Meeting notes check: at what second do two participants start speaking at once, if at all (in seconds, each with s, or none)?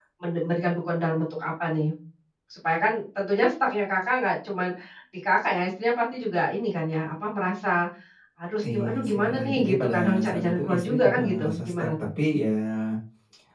8.7 s